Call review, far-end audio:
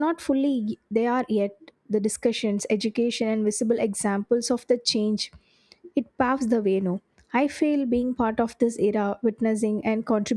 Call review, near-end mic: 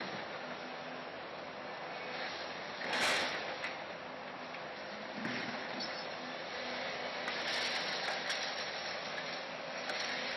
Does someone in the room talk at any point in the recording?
No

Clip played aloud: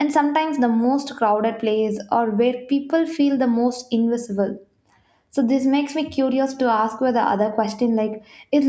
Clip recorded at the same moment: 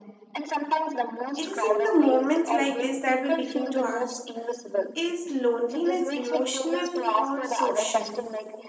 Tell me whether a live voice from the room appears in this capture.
Yes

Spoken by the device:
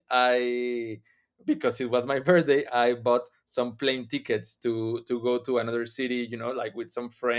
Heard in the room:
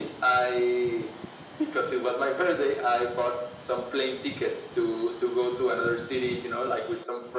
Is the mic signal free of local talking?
Yes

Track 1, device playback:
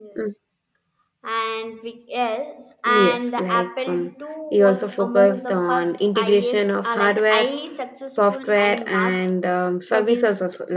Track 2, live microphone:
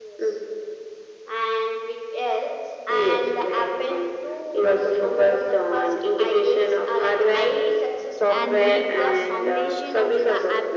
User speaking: Yes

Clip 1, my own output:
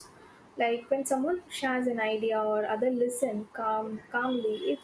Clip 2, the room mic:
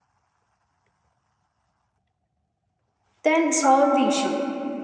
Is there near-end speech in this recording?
Yes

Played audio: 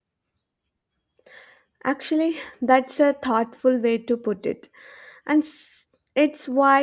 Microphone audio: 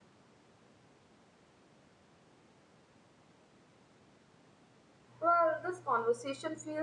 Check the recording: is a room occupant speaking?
Yes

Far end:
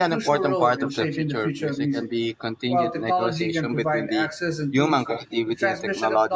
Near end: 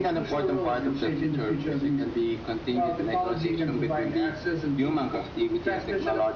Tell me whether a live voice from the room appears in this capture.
No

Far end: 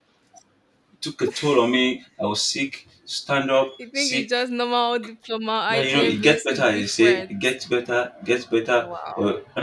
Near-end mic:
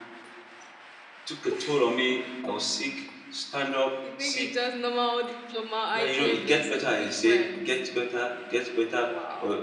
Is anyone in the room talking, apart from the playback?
No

